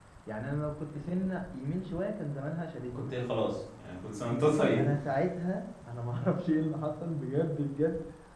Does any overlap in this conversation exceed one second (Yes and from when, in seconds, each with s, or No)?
No